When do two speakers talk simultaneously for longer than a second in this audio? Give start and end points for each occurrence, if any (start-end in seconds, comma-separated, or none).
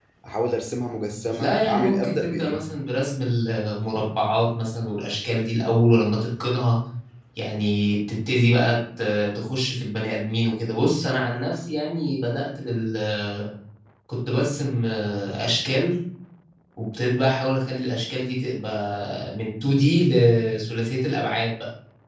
1.4-2.6